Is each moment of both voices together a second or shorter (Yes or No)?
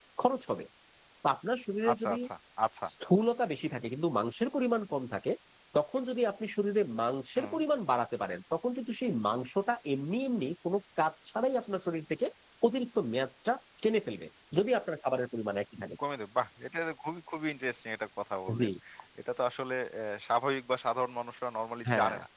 Yes